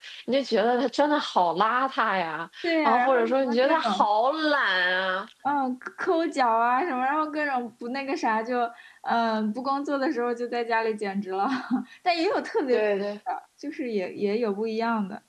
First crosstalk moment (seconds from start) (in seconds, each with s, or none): 2.6 s